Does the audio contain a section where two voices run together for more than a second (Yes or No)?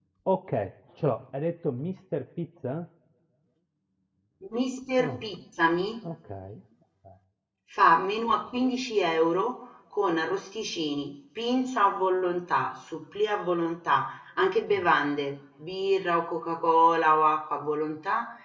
No